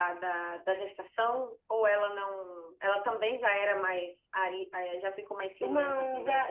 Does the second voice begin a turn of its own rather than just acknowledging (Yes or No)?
Yes